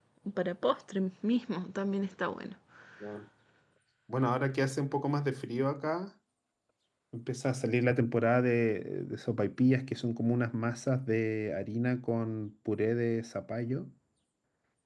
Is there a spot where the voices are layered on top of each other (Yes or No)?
No